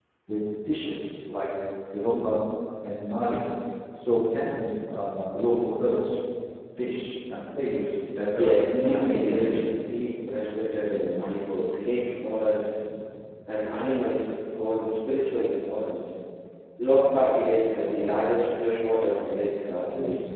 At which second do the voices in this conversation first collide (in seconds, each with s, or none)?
8.4 s